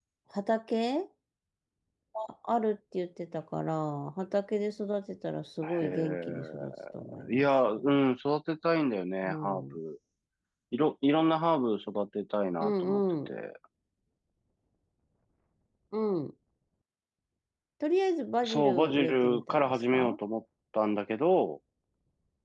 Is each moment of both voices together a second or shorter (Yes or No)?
No